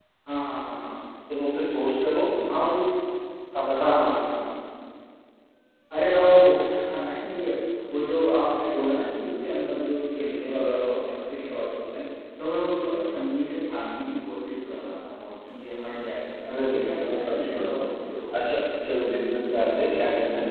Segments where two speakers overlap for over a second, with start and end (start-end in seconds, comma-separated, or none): 16.5-17.7